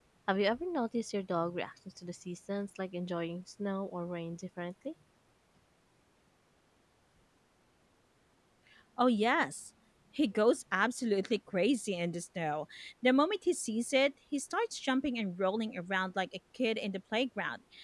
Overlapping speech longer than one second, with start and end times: none

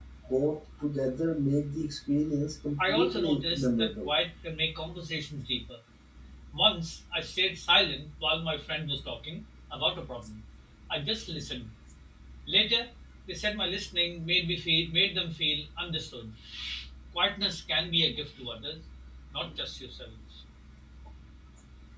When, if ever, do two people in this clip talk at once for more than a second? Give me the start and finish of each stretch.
2.8-4.1

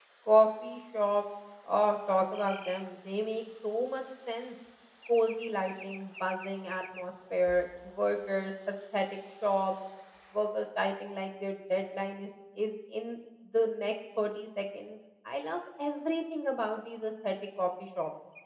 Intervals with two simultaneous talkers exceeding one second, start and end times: none

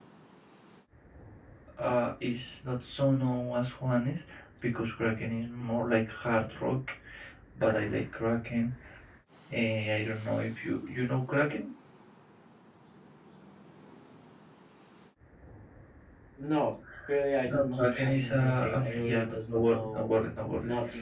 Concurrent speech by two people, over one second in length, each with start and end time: 17.5-20.1

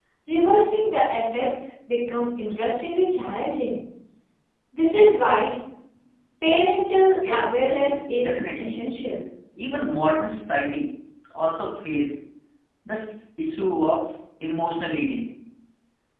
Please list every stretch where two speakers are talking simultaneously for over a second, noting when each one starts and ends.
7.3-8.8

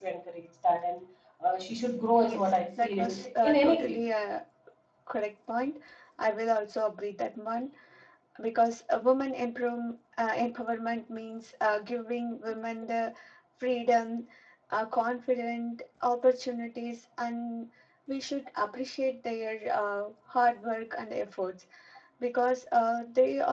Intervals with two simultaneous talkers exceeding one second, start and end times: 2.2-4.0

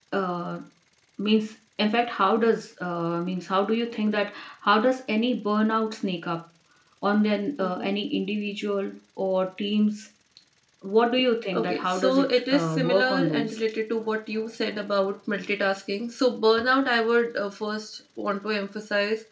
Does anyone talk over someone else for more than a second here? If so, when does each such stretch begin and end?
11.5-13.5

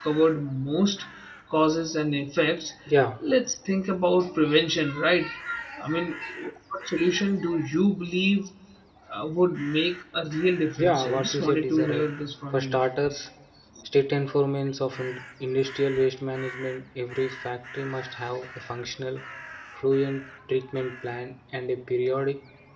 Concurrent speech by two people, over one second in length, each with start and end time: 10.8-12.1

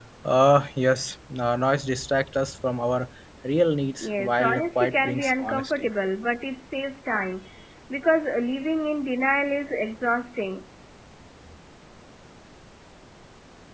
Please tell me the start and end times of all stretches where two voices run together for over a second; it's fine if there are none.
4.0-5.9

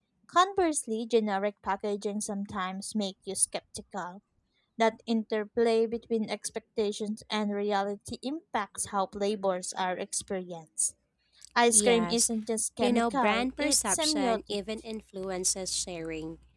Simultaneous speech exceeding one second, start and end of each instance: 12.8-14.4

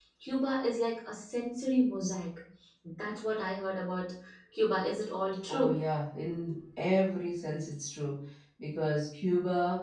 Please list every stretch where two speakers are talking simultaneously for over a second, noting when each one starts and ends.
none

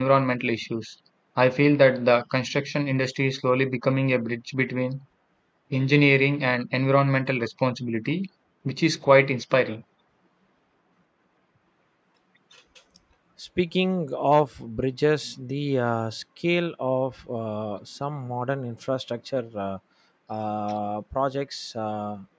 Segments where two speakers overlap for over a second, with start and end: none

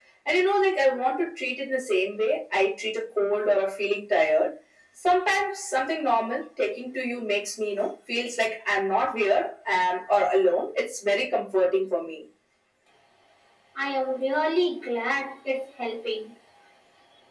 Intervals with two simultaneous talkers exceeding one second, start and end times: none

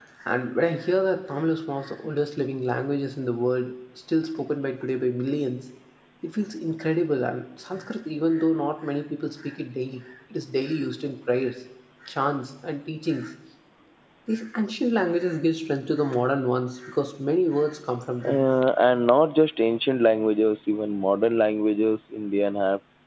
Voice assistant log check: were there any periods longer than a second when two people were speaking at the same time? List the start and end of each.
none

